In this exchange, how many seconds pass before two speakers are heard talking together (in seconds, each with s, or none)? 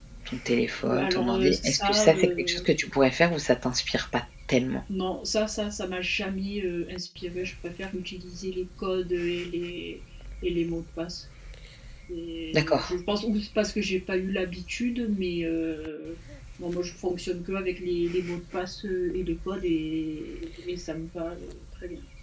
0.8 s